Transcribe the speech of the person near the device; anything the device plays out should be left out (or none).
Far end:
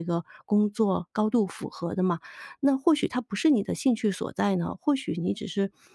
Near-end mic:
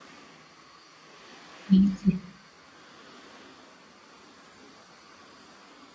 理解，